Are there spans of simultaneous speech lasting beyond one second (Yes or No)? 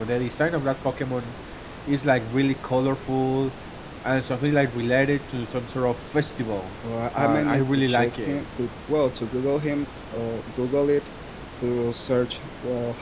Yes